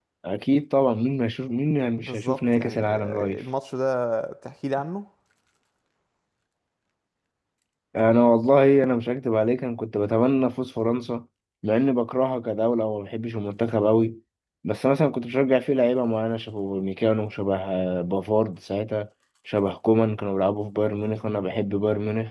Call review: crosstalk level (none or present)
present